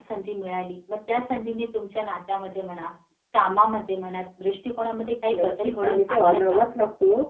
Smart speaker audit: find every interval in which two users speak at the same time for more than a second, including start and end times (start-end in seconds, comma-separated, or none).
5.3-6.7